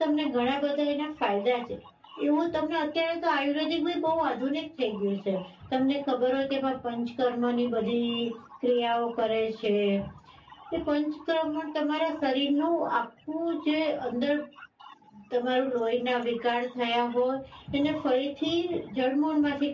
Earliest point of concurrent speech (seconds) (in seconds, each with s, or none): none